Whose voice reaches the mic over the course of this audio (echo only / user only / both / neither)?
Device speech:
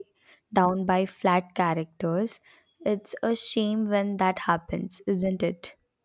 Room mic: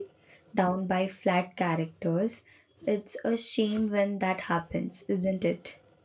echo only